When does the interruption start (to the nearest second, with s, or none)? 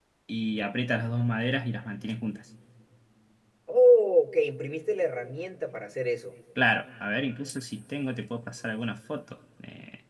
none